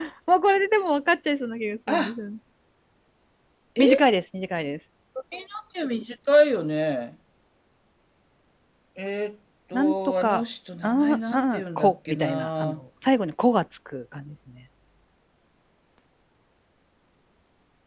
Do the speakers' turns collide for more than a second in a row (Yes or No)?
Yes